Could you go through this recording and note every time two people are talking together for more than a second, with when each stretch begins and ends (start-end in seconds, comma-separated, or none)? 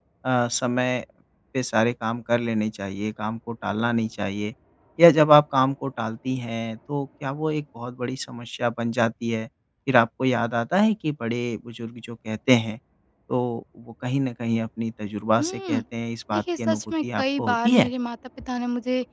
16.3-17.9